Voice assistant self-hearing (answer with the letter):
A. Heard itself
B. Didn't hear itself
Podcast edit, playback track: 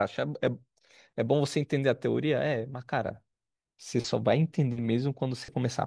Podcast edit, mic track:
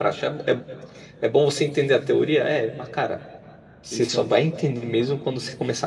A